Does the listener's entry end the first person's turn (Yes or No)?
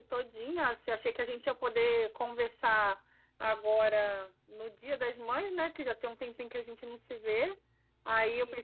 No